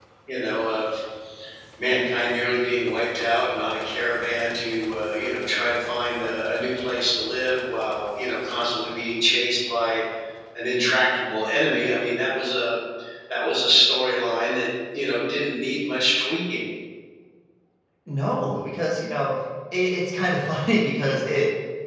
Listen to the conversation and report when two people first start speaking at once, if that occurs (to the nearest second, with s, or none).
none